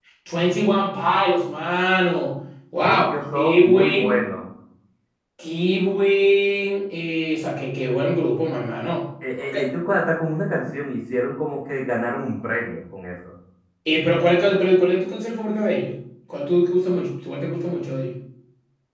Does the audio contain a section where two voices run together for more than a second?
Yes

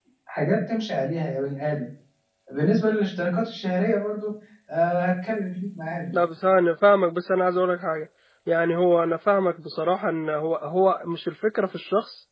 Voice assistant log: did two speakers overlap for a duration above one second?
No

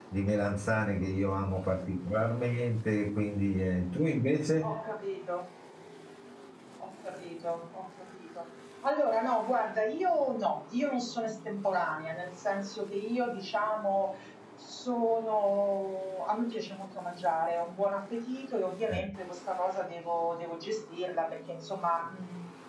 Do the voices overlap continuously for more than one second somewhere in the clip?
No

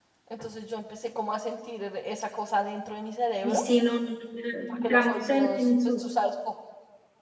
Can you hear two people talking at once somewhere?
Yes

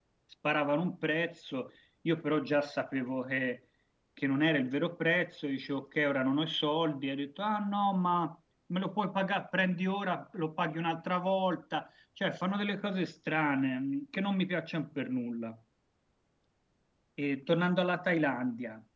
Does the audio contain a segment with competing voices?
No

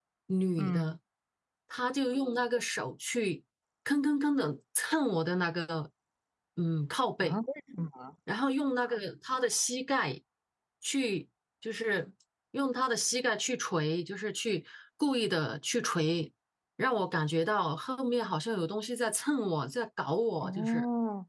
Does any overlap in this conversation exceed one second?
No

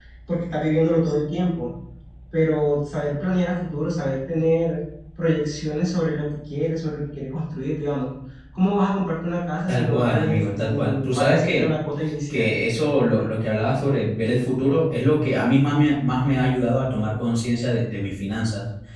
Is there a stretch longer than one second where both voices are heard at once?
Yes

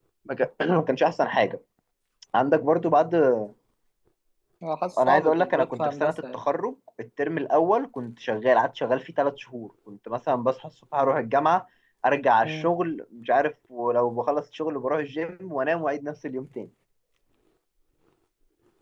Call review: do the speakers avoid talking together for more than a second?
No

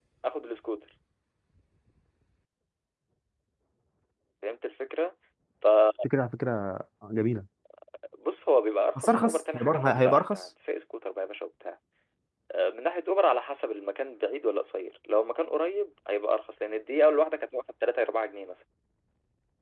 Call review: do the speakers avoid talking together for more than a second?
No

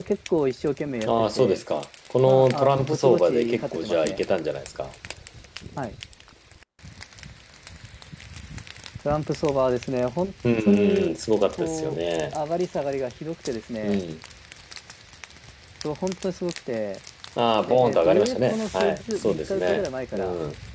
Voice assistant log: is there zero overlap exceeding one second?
No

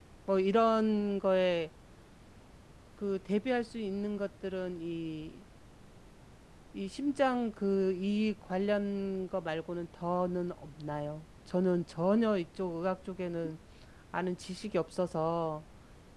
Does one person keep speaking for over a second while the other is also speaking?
No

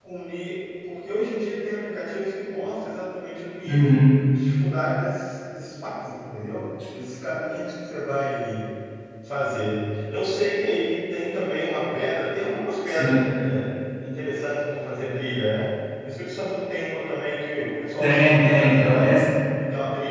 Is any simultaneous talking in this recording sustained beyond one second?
Yes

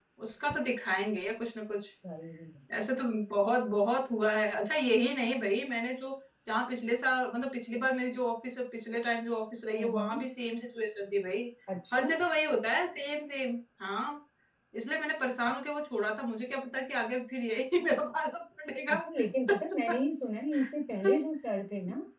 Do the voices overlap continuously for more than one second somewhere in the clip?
No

